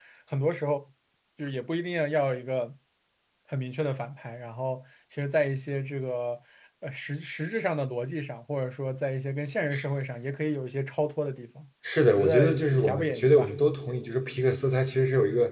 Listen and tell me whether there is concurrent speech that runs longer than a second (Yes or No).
Yes